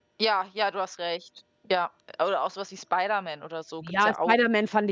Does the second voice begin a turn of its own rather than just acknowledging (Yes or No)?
Yes